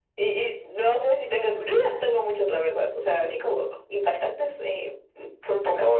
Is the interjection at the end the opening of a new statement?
Yes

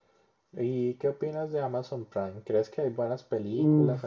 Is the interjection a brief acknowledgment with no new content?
No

